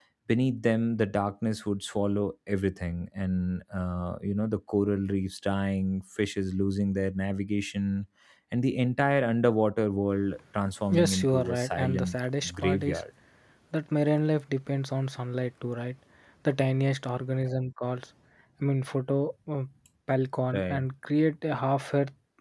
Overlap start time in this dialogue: 11 s

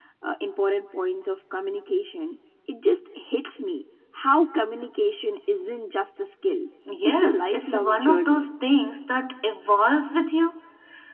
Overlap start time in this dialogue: 7 s

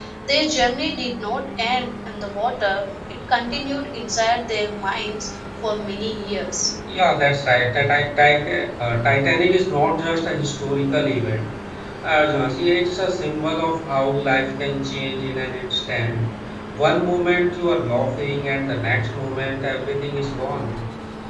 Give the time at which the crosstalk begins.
none

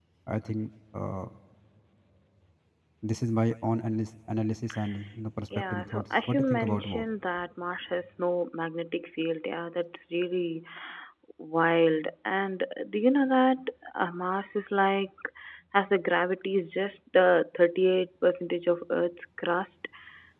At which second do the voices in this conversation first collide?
6 s

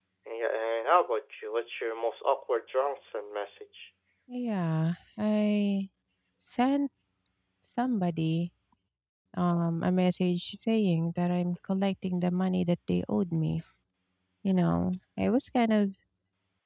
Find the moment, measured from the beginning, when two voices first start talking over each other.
none

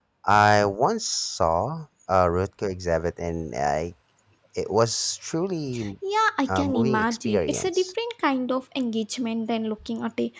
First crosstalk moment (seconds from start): 6 s

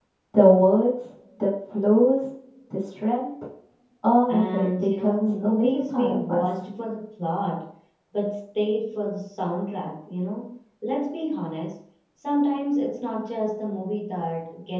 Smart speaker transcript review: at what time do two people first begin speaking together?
4 s

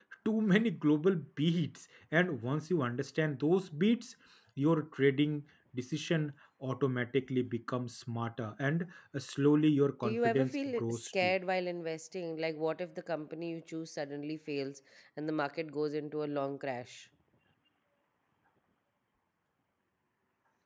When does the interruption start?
10 s

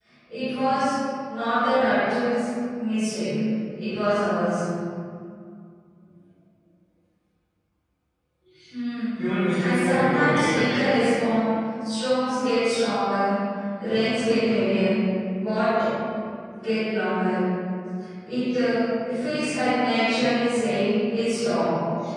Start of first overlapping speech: 10 s

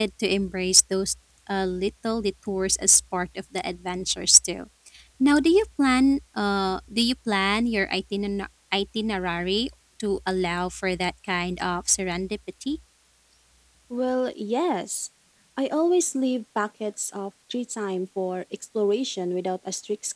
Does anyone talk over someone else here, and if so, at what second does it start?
none

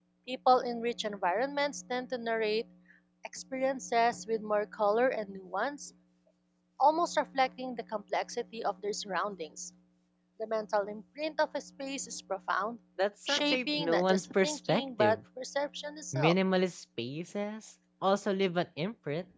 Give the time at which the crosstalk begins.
13 s

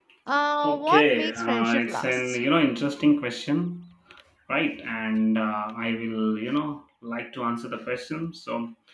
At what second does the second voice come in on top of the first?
1 s

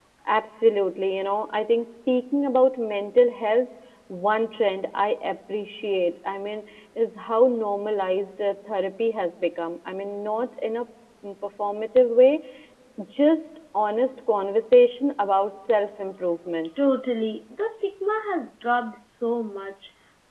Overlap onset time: none

